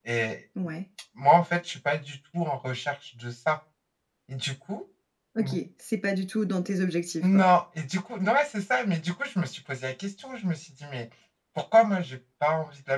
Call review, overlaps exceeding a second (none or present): none